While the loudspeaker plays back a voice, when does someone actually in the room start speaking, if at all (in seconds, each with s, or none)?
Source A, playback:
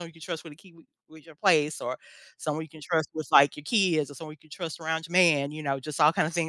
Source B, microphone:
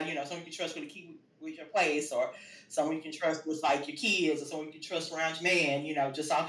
none